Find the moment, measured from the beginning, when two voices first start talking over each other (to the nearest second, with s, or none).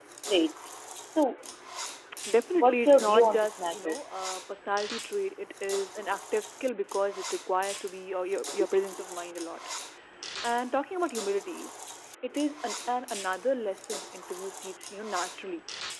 3 s